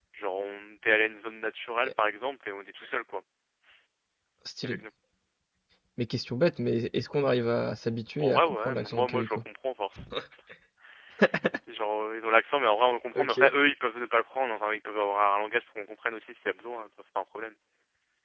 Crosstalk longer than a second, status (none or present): present